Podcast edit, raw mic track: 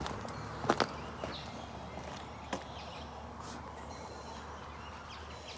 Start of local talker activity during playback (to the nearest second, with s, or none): none